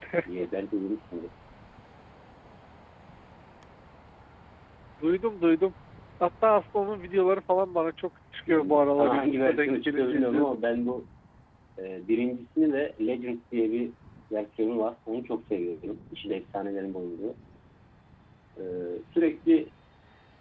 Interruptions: present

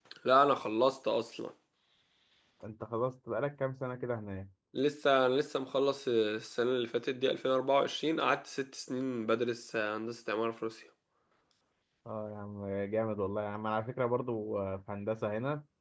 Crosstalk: none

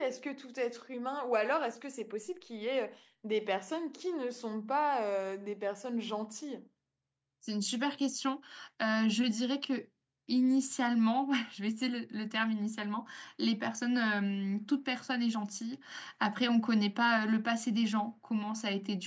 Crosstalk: none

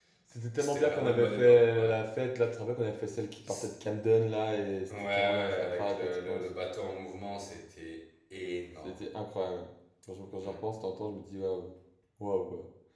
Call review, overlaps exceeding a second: present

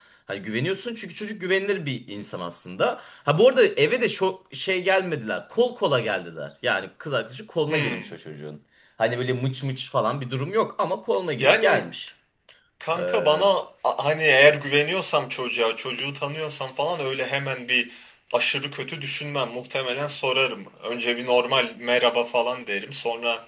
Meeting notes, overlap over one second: none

